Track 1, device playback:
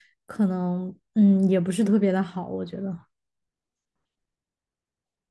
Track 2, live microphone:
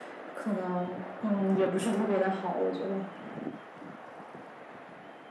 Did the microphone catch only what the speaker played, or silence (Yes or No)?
Yes